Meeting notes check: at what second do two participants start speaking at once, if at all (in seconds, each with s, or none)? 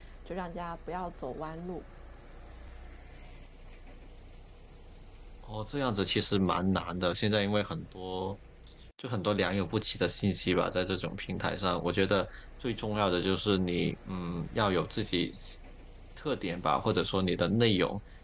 none